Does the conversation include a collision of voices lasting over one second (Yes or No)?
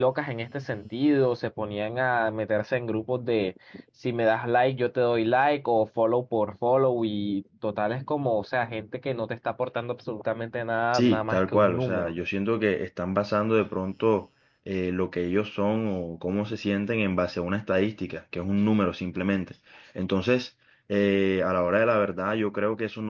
Yes